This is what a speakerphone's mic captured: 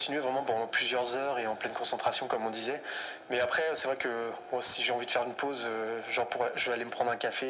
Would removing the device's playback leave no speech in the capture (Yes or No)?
Yes